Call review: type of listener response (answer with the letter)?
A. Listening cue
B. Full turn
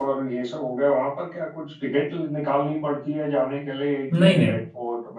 A